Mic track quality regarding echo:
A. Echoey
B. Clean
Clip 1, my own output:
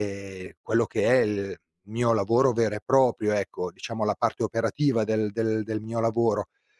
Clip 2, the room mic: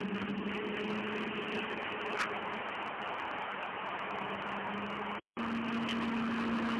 B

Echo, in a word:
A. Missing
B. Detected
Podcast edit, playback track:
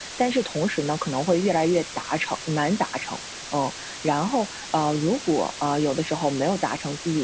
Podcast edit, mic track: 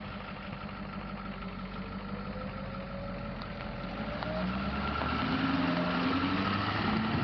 A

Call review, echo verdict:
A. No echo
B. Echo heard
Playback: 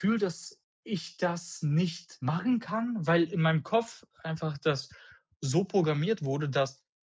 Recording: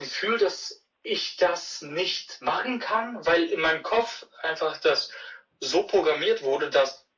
B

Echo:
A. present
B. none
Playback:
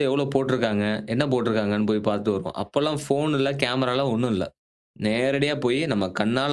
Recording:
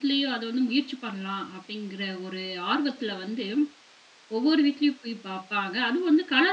B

